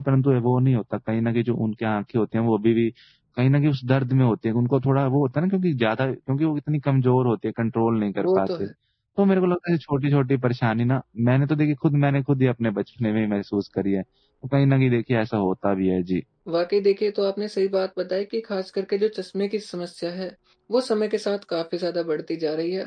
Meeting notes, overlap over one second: none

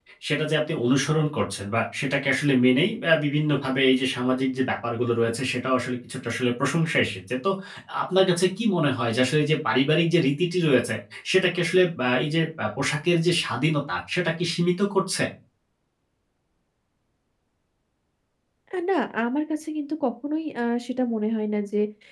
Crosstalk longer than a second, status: none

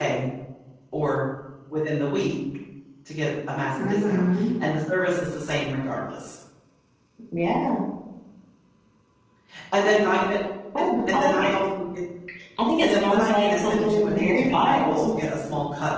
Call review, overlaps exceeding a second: present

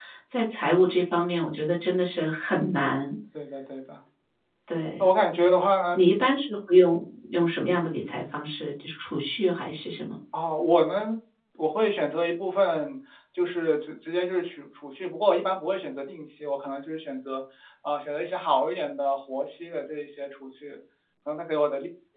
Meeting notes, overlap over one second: none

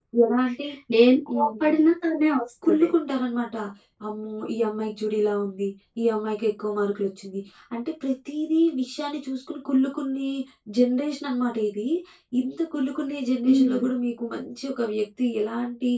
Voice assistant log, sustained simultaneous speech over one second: none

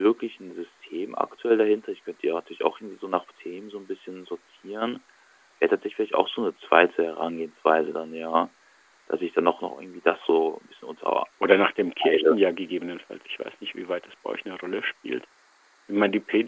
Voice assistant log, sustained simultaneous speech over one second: none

